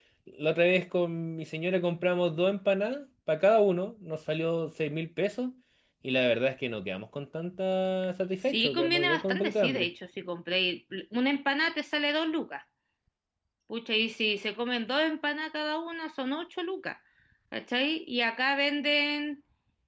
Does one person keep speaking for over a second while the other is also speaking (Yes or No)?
Yes